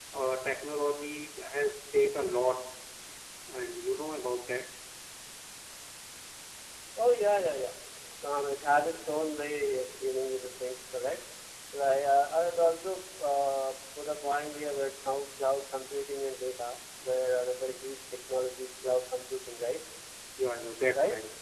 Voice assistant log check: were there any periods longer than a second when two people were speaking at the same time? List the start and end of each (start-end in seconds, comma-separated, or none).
none